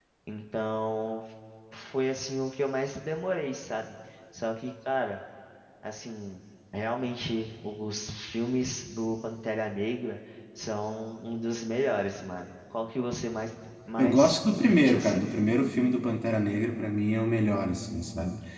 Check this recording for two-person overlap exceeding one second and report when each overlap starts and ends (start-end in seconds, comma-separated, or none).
14.0-15.2